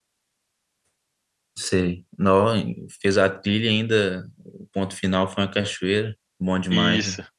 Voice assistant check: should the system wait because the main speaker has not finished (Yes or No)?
No